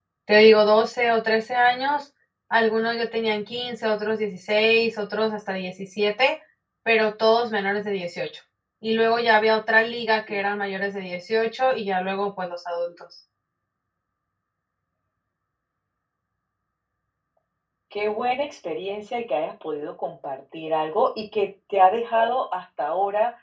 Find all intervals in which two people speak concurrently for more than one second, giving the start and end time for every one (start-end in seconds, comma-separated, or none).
none